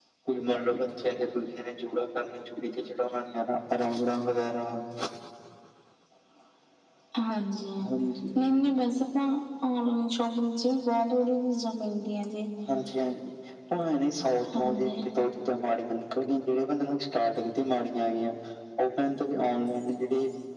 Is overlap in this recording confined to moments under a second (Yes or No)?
Yes